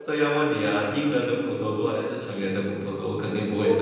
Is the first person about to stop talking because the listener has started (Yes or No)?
Yes